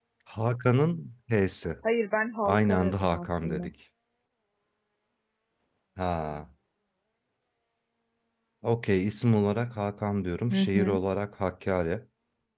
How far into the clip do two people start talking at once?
2 s

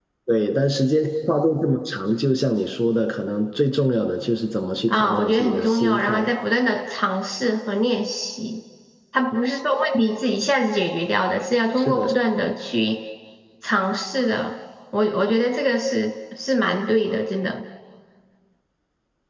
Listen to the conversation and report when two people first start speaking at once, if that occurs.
5 s

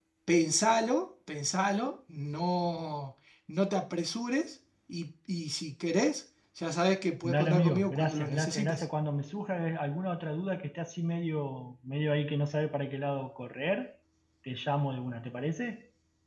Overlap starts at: 7 s

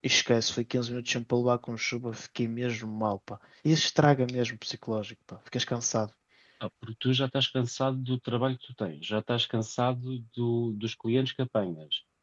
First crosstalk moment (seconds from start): none

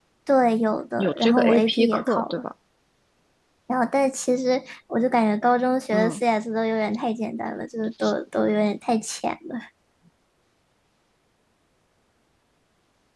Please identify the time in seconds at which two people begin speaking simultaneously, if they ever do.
1 s

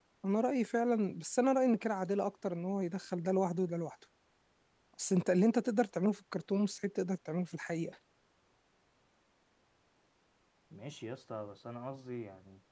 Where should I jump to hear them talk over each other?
none

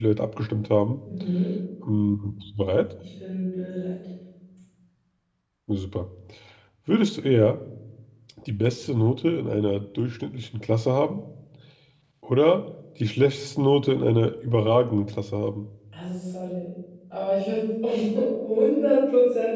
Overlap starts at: none

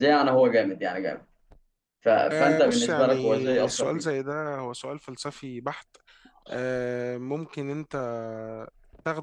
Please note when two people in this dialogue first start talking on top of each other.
2 s

